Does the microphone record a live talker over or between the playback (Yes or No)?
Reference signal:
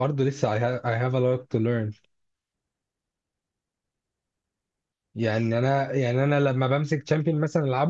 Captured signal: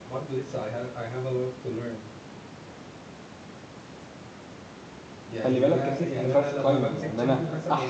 Yes